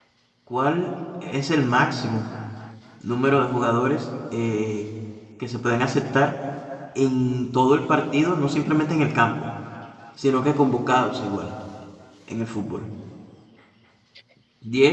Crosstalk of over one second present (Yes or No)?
No